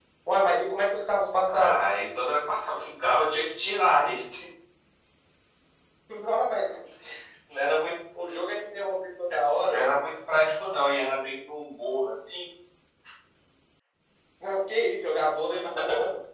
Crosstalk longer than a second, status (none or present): none